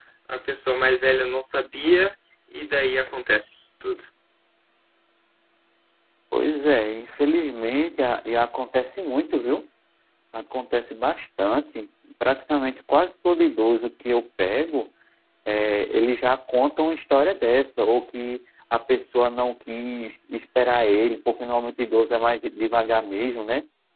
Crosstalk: none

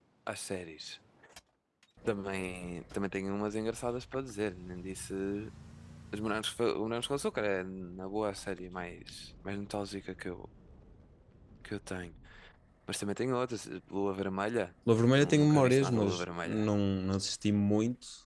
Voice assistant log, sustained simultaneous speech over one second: present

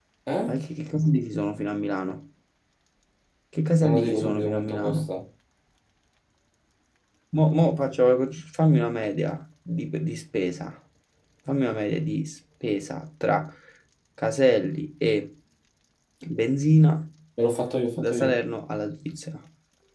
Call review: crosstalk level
present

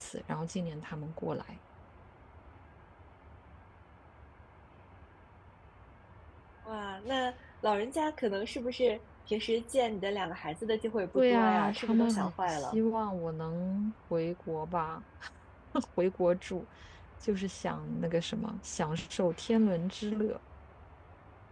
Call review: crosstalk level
present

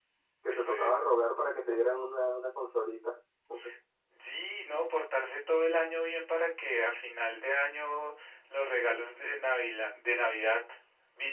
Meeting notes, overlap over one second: none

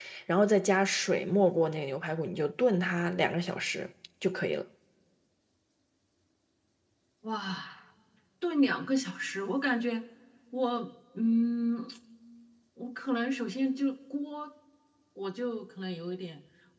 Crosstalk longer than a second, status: none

